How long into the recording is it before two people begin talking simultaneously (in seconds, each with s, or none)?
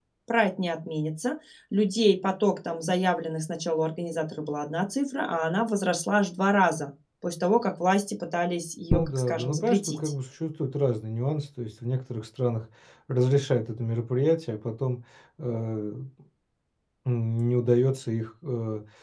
8.9 s